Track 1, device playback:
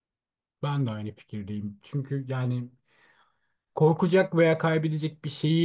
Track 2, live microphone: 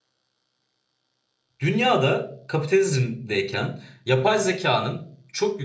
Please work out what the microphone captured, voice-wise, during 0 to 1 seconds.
neither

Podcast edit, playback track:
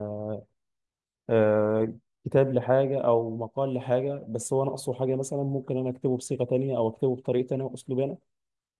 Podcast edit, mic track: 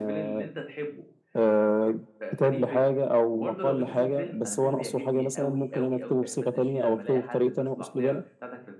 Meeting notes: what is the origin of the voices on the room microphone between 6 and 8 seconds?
both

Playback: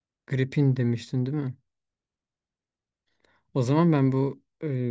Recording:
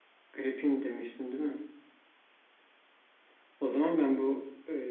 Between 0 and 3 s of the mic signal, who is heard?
echo only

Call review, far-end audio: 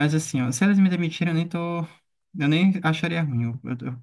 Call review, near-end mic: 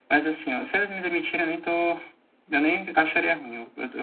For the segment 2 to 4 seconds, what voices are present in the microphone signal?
echo only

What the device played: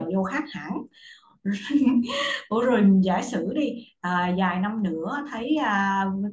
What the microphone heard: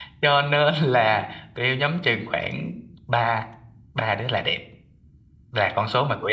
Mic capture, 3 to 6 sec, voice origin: user only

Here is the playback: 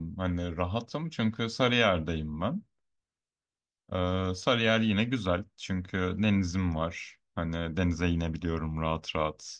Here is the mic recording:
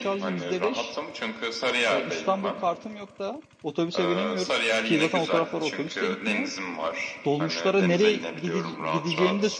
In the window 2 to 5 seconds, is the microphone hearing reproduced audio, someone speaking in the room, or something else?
both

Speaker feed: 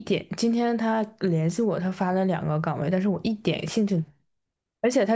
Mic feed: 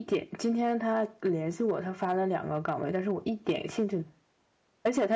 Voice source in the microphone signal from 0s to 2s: echo only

